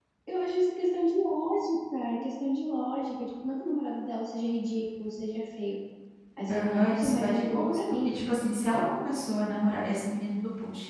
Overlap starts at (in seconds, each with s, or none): 6.5 s